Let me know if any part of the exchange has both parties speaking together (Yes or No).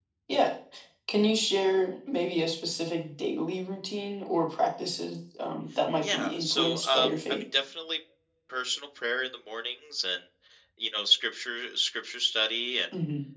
Yes